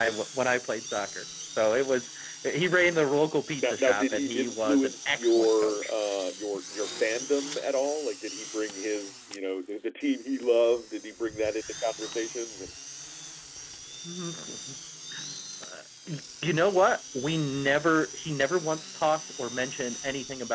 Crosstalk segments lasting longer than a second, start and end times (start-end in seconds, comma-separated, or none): 3.6-5.9